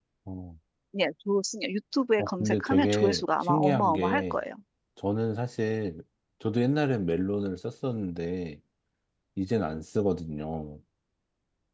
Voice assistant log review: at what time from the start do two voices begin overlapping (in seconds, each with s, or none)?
2.2 s